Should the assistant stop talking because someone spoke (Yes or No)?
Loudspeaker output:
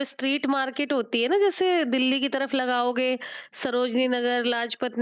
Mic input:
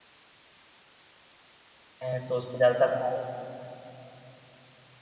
Yes